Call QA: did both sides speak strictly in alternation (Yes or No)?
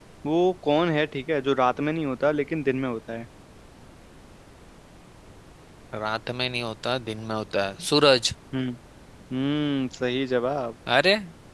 Yes